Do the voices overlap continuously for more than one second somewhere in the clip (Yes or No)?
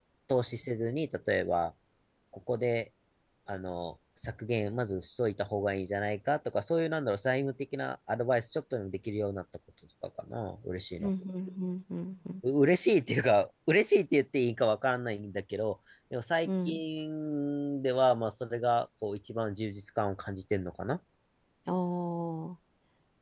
No